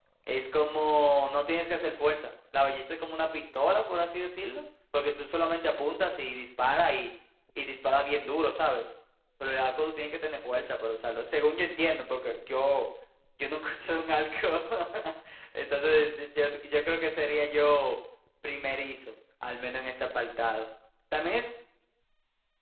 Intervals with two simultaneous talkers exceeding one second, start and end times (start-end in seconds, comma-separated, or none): none